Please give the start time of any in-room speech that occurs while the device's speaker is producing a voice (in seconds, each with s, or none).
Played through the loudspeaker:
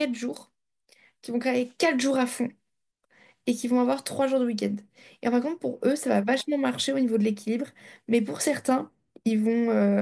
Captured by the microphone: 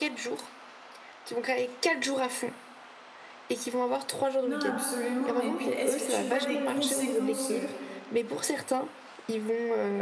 4.4 s